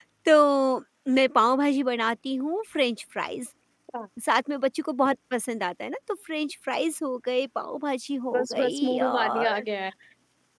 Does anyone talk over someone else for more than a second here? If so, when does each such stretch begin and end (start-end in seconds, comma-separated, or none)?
8.3-9.6